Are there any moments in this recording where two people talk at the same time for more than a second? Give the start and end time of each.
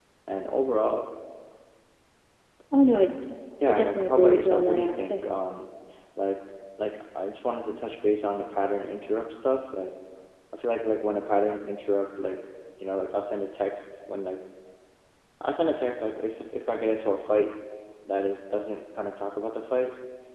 3.7-5.2

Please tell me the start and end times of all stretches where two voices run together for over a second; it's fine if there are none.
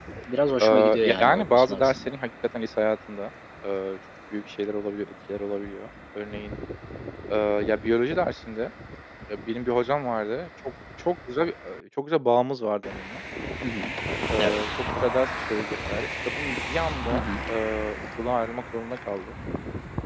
0.6-2.2

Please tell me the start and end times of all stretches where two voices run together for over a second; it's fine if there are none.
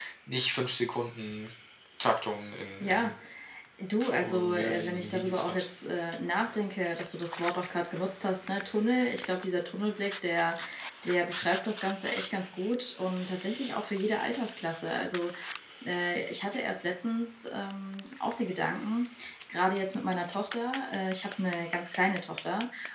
4.0-5.7

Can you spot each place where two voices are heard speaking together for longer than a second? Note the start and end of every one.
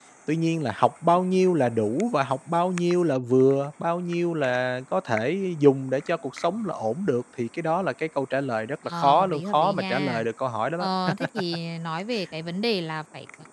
8.9-10.2

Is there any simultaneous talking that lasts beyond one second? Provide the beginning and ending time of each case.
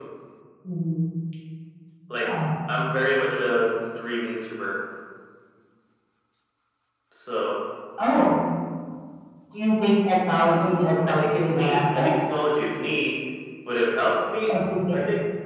10.4-12.1

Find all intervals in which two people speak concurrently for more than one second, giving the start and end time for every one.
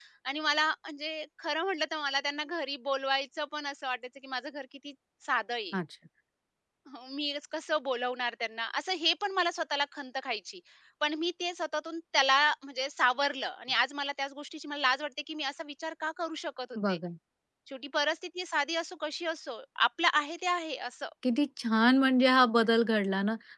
none

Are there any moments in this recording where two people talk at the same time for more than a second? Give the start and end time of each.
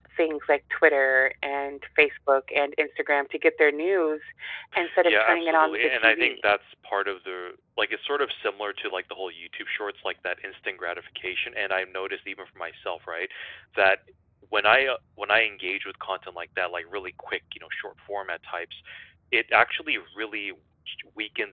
5.0-6.4

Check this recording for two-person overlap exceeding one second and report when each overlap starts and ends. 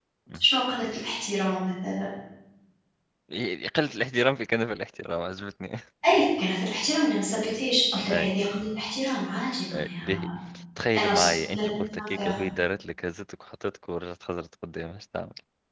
11.0-12.4

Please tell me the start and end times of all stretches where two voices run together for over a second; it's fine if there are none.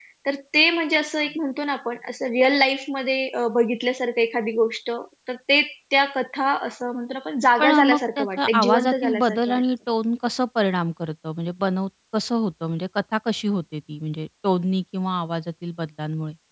7.6-9.6

